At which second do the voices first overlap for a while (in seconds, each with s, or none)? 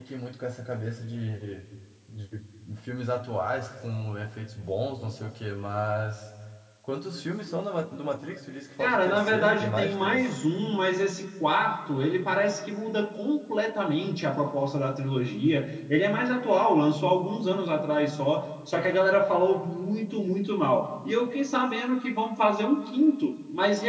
8.8 s